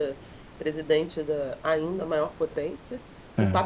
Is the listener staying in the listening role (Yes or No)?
Yes